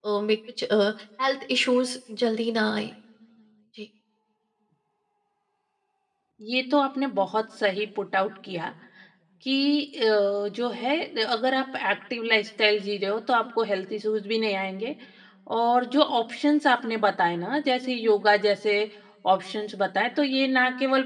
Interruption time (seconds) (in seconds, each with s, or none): none